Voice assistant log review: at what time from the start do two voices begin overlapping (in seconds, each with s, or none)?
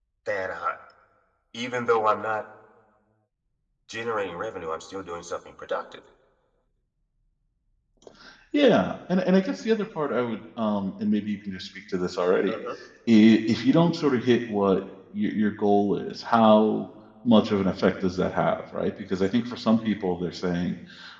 none